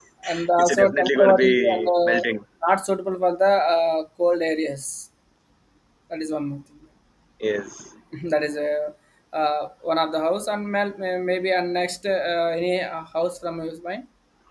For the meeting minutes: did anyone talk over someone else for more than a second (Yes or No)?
Yes